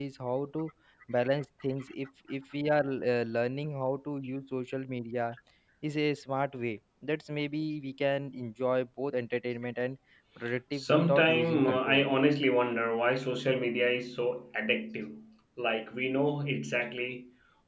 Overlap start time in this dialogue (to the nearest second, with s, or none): 11 s